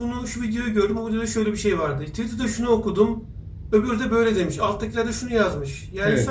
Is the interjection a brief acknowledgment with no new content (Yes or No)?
Yes